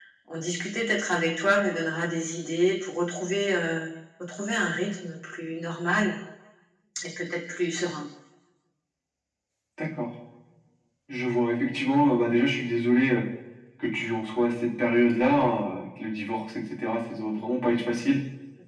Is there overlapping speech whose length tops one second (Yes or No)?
No